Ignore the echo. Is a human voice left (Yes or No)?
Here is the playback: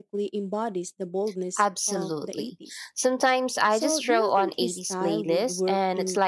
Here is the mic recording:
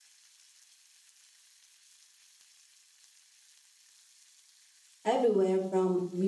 Yes